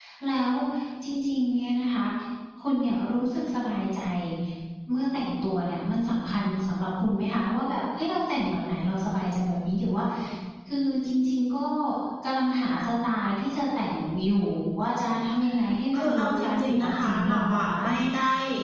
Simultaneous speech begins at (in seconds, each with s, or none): 15.9 s